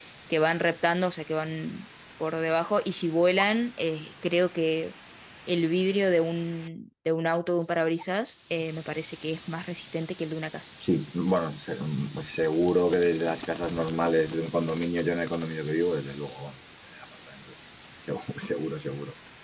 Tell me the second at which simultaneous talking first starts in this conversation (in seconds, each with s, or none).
none